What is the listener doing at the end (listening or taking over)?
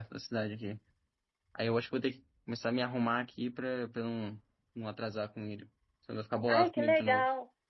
taking over